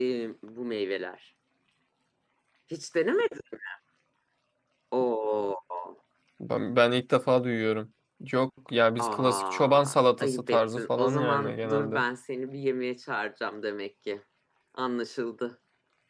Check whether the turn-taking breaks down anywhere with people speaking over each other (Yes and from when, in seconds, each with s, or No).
Yes, from 9.0 s